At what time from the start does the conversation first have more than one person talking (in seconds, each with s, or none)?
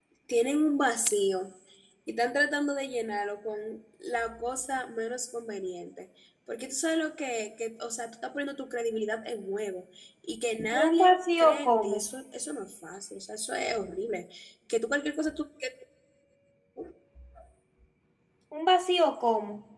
10.7 s